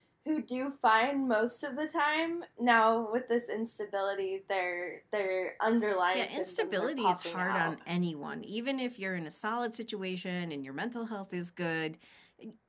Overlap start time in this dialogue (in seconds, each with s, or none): 6.1 s